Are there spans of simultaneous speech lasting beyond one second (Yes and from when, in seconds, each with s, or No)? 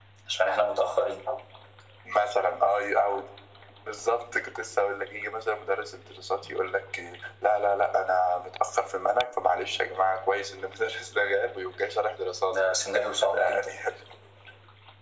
Yes, from 12.5 s